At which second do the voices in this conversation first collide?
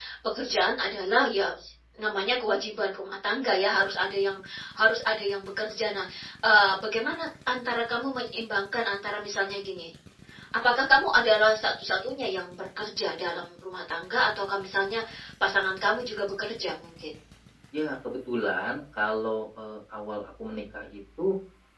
none

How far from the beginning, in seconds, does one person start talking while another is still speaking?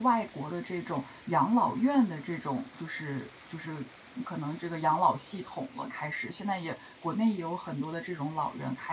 none

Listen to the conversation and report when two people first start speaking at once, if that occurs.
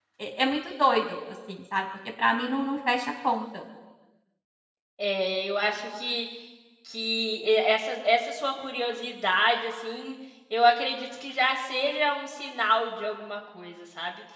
none

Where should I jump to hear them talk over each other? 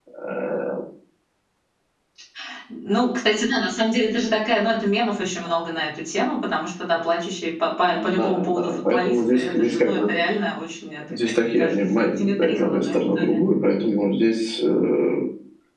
7.9 s

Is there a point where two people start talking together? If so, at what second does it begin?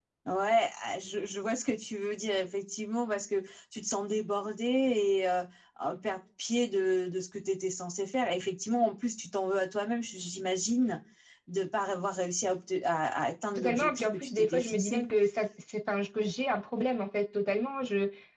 13.6 s

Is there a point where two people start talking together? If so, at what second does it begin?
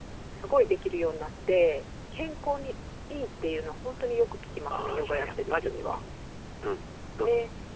4.7 s

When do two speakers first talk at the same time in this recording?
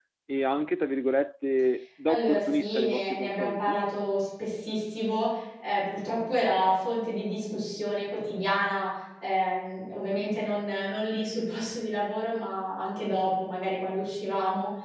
2.1 s

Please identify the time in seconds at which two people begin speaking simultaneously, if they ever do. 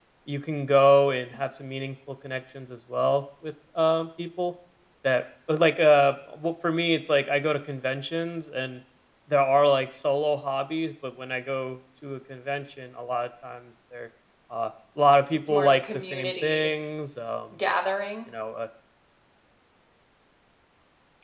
15.3 s

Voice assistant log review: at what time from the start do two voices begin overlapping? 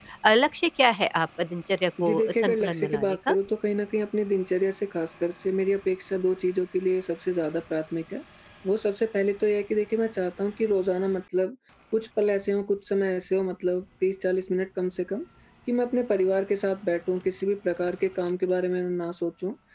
2.0 s

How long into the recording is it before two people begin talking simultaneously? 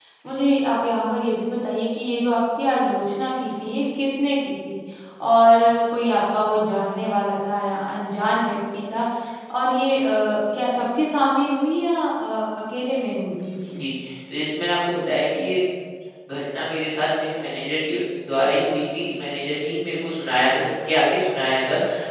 none

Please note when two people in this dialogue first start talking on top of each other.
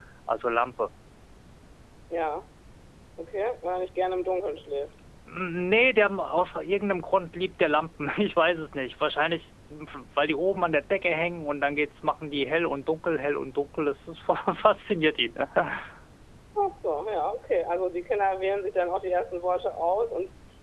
none

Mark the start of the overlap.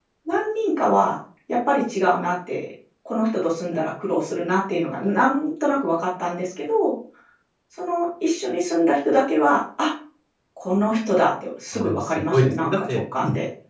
11.7 s

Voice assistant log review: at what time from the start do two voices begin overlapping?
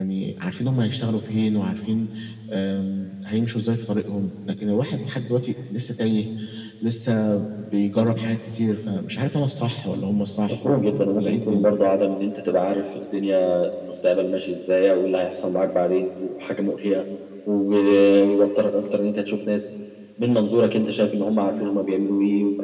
10.5 s

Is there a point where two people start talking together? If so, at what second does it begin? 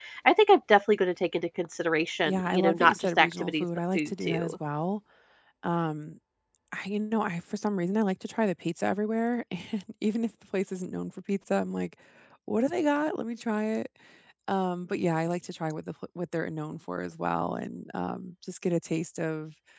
2.2 s

